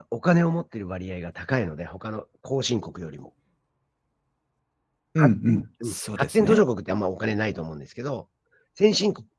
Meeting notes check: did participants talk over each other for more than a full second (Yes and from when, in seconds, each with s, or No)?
Yes, from 5.2 s